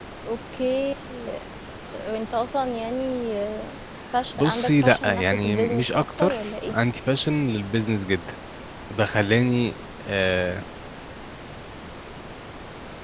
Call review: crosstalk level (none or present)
present